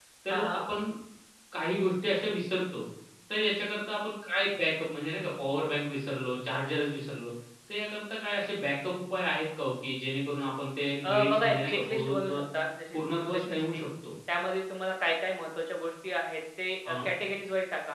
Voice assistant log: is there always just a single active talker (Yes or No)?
No